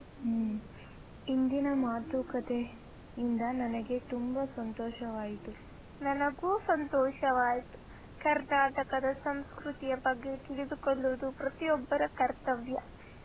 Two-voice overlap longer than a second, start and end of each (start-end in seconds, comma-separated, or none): none